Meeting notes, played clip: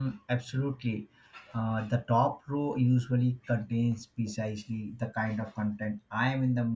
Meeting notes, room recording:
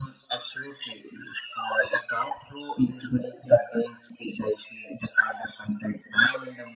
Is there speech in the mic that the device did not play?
No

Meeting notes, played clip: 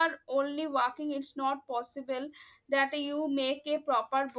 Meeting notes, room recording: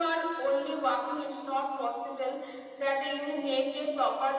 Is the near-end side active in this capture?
No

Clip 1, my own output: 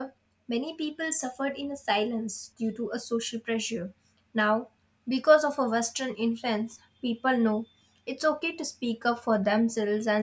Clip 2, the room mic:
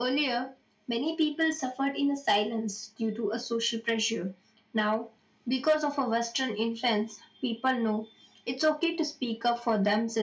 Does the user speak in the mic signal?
No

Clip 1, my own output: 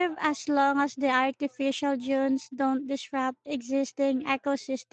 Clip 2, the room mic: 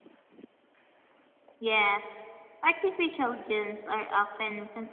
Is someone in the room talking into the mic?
Yes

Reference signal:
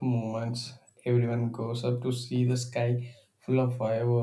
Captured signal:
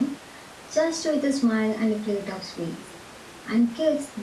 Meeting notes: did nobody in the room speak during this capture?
No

